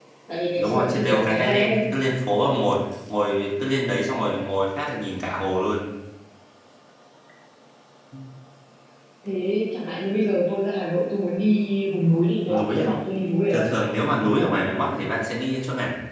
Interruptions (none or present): present